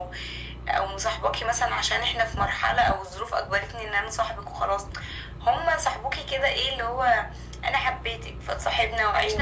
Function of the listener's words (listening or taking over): listening